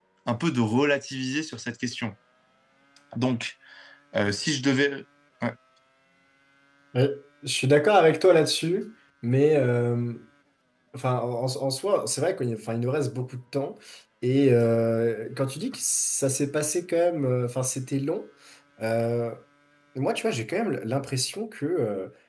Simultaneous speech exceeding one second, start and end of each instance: none

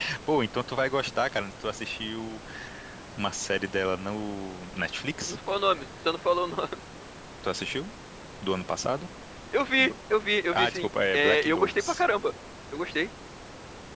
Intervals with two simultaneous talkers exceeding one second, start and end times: 10.5-12.0

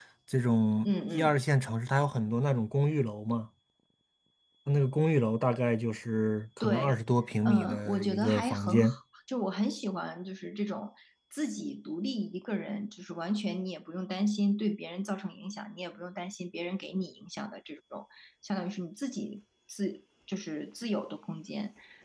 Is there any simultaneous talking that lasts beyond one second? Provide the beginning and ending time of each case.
7.5-8.9

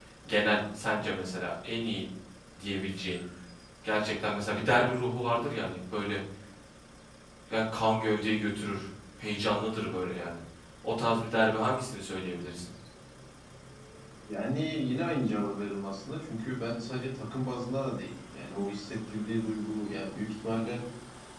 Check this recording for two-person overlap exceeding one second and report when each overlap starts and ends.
none

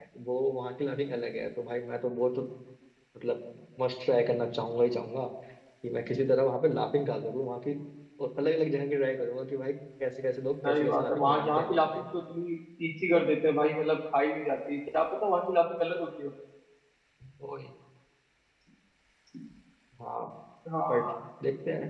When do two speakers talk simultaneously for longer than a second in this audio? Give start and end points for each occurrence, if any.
10.6-12.0

